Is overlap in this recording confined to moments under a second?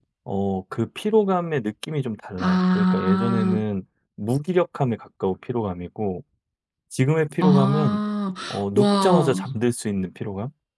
No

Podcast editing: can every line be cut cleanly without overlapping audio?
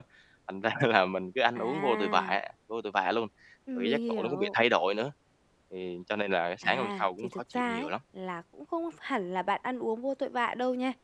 No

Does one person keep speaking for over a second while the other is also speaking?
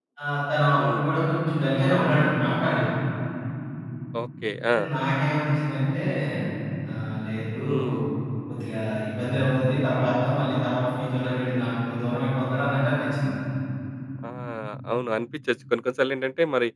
No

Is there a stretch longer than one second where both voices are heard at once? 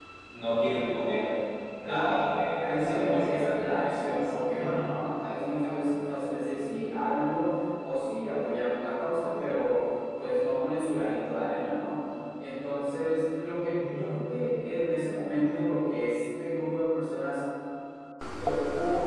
Yes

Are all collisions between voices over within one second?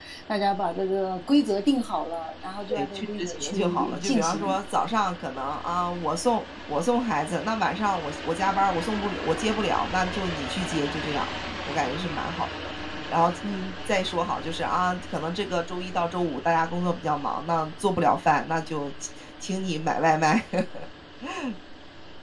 No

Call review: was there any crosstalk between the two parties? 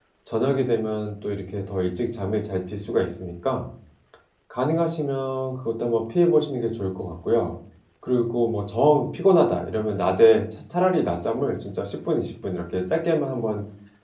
No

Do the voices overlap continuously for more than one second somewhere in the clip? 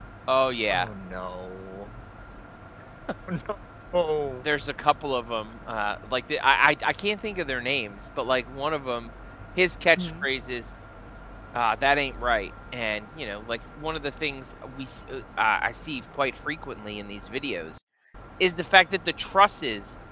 No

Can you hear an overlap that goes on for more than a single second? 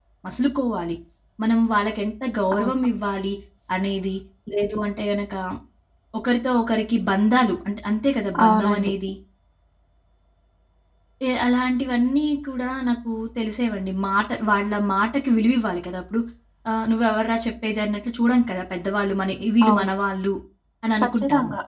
No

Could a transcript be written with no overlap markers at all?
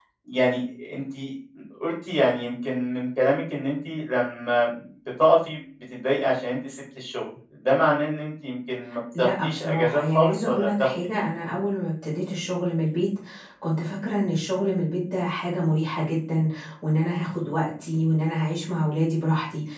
No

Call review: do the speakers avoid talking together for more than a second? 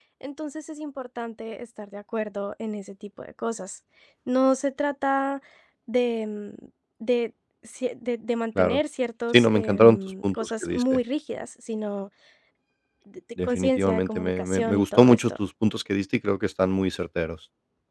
No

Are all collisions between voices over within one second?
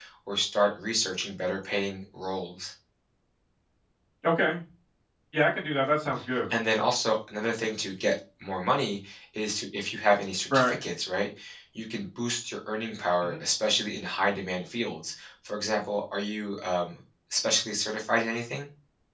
Yes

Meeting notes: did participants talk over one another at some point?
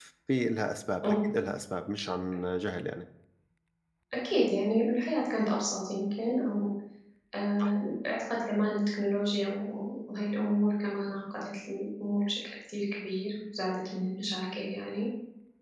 No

